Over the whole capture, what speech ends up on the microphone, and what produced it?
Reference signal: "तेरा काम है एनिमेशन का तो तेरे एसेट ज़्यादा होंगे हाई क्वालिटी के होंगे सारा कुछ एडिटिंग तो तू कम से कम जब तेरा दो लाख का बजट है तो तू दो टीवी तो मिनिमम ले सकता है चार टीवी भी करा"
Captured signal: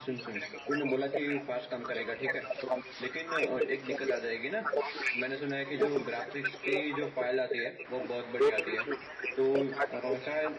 both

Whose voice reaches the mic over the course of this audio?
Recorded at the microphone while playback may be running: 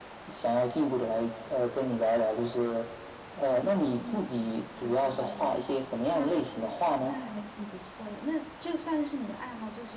both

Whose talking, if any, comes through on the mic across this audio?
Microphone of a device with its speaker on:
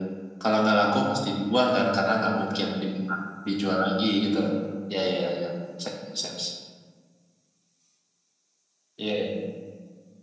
echo only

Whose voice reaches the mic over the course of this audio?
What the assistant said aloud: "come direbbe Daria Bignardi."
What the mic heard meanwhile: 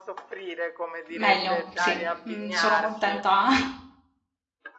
both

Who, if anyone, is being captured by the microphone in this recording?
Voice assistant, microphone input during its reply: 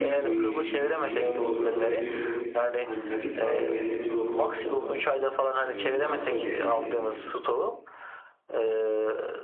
both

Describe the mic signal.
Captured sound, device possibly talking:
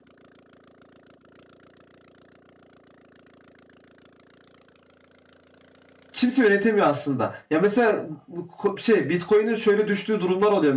user only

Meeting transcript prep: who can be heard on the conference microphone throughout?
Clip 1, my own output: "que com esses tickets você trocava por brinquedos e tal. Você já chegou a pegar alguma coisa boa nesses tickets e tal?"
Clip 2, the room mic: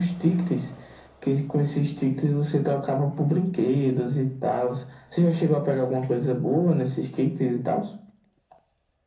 echo only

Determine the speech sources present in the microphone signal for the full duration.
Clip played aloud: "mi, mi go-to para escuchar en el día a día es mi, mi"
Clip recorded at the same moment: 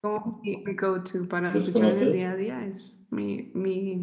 both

